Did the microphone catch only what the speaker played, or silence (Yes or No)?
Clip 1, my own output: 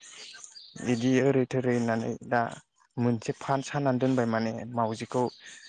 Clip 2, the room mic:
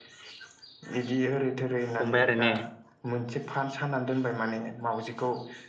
No